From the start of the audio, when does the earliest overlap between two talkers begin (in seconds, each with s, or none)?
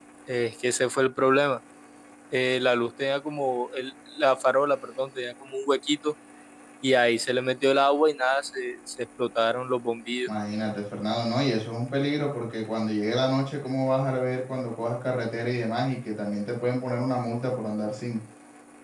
none